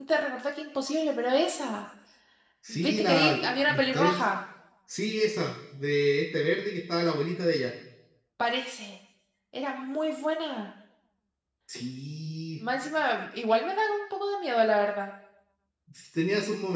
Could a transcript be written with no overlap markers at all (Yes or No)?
No